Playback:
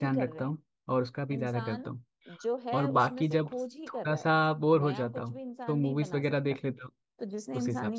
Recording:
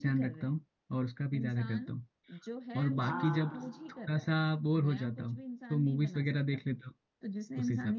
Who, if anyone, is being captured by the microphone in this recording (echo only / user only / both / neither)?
both